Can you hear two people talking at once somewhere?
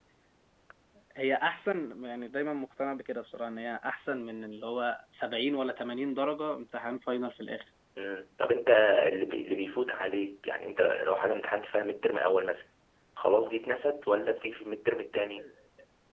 No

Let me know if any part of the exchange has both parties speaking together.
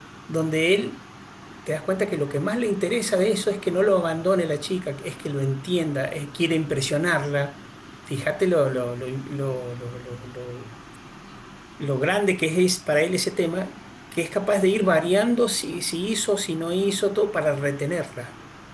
No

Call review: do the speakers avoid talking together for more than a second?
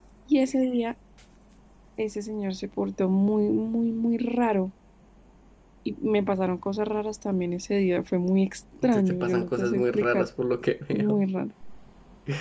No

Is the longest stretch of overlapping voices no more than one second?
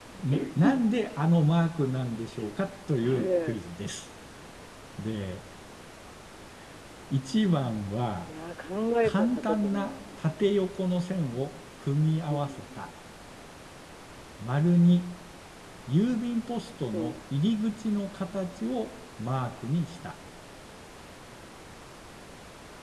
No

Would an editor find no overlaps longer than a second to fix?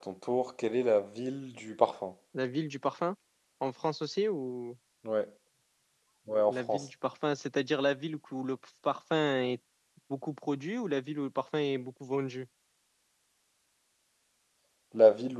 Yes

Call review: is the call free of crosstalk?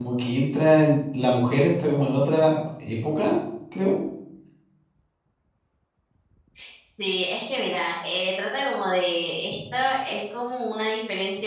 Yes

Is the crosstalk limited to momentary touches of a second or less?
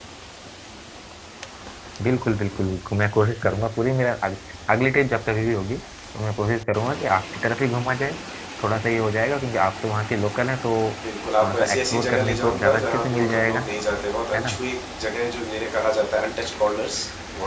No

